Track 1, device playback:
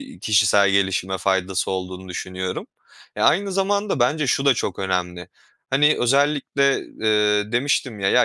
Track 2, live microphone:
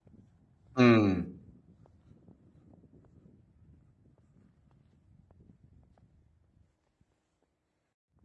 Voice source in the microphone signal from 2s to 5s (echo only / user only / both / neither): neither